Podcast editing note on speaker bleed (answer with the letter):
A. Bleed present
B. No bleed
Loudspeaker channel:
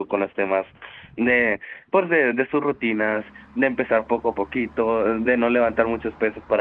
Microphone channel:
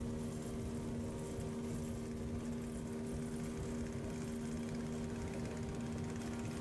B